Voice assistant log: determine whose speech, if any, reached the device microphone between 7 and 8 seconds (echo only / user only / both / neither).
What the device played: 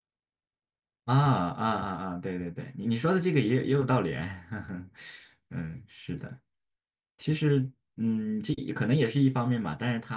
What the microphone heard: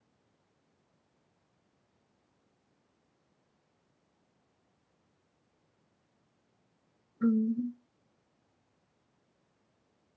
user only